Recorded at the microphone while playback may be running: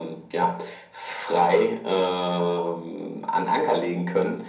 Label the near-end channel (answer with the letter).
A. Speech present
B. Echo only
B